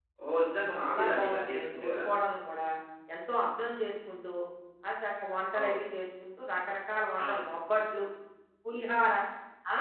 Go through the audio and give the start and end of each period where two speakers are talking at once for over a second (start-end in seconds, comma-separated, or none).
0.7-2.0